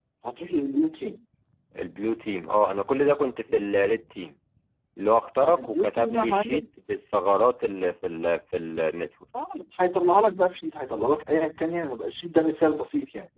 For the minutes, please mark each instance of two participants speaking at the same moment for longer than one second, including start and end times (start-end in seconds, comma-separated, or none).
5.4-6.6